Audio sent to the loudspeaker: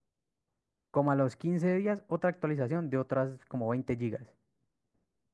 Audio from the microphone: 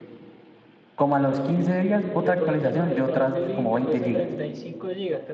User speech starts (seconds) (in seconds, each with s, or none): 2.2 s